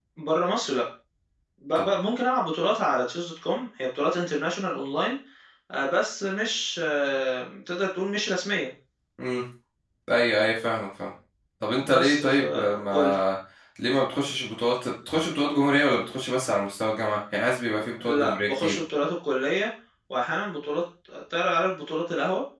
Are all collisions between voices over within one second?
No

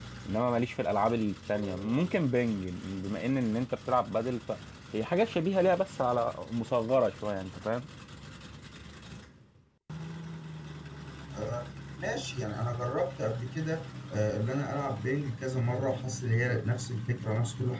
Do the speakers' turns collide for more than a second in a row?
No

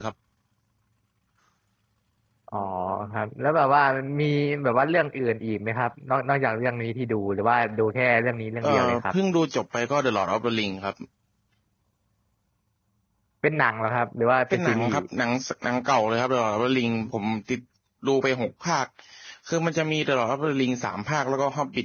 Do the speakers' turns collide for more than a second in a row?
No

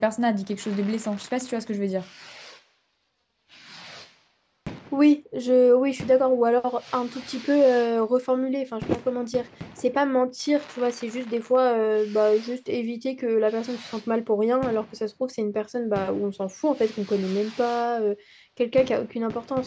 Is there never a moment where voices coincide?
Yes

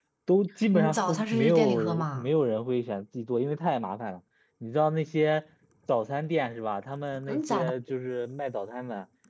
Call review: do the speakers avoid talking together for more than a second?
No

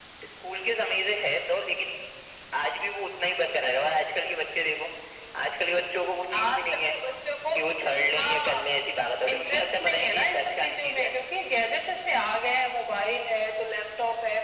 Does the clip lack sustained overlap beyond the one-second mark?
No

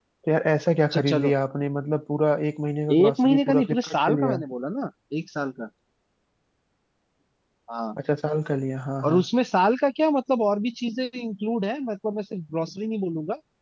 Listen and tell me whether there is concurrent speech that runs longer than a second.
Yes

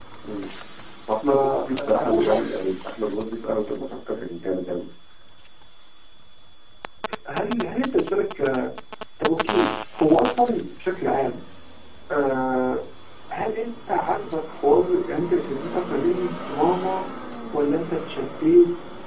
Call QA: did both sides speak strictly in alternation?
No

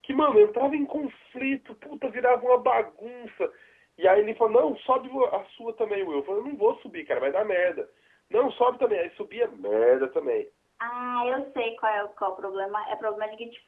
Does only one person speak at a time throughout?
Yes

